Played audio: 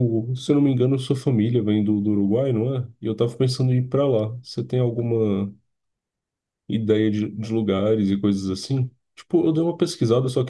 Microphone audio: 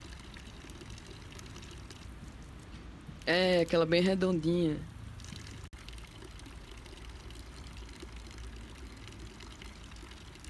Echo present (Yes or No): No